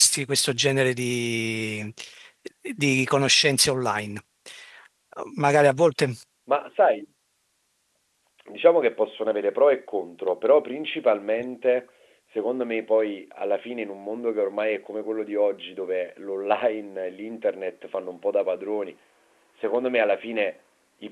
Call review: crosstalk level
none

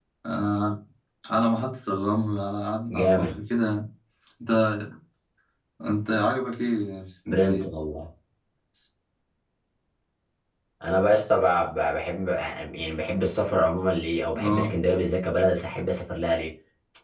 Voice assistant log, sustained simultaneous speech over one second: none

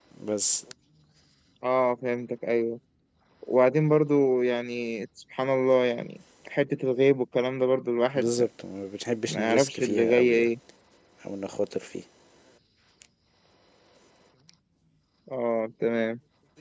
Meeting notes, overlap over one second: present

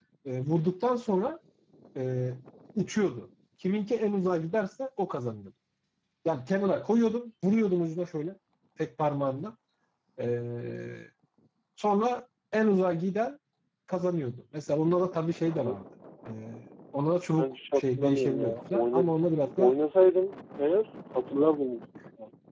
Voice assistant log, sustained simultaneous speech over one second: present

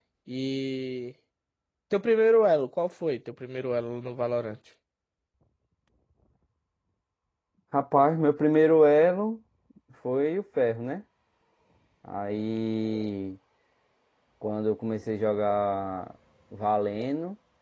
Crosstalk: none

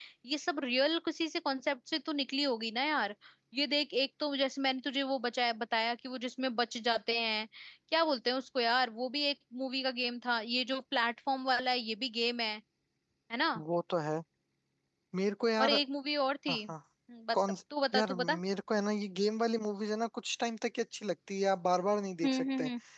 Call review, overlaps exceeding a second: none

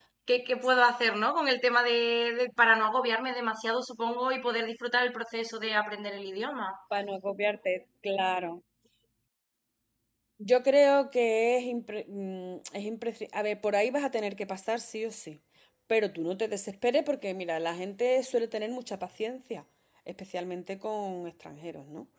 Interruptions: none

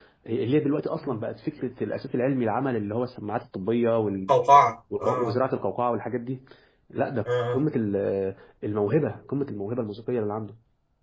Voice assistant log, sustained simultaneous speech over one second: none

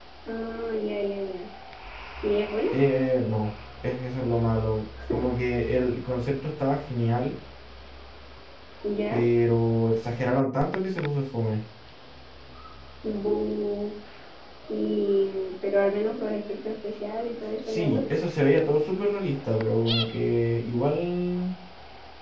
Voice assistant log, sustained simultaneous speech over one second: none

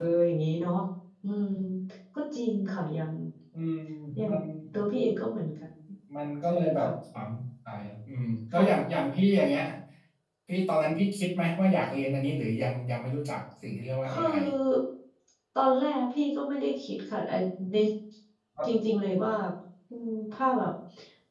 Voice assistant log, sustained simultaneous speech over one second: none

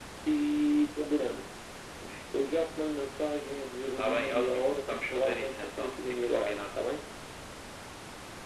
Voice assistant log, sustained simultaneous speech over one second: present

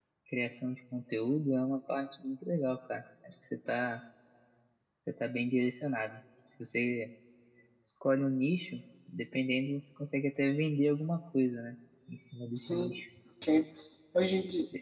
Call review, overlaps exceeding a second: none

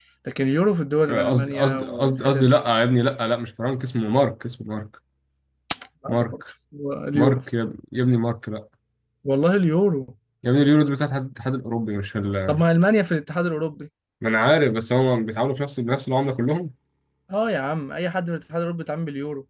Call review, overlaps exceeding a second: present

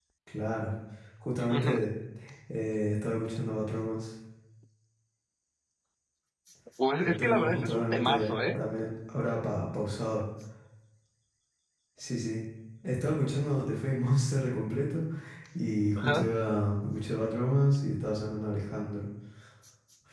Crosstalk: present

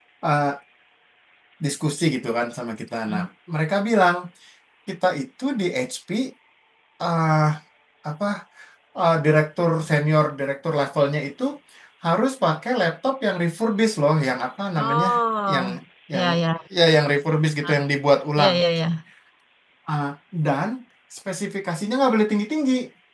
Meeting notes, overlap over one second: none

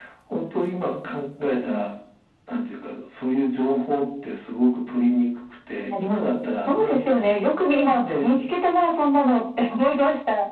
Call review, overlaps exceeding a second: none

